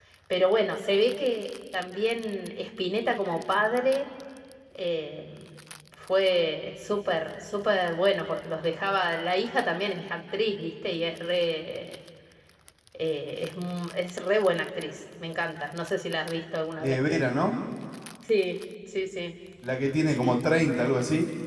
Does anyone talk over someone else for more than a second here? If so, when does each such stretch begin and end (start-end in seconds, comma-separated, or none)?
none